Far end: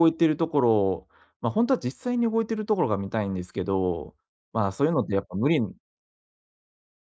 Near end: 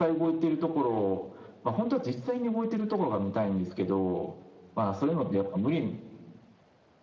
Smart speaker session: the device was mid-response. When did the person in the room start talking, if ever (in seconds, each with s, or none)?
none